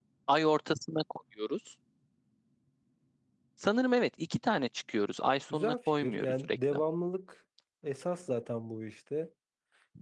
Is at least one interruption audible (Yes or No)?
Yes